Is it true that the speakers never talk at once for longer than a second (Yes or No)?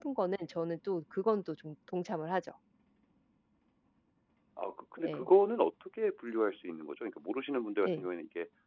Yes